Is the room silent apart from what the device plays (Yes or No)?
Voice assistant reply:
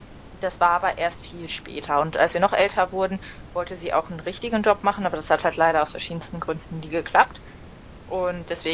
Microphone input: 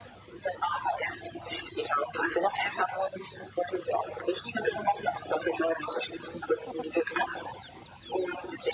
Yes